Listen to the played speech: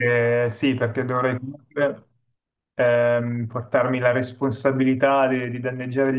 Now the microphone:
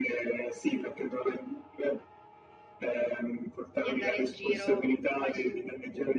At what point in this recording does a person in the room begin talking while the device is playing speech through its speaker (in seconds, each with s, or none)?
3.8 s